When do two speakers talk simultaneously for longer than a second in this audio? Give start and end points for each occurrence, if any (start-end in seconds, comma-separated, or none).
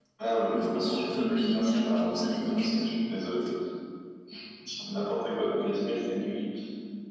0.5-2.9